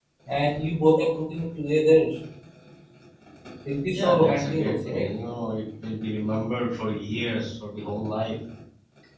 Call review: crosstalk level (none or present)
present